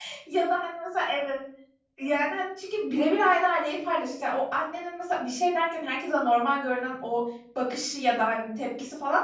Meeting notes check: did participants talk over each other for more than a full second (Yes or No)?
No